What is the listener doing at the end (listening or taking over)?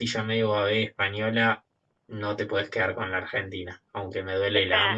taking over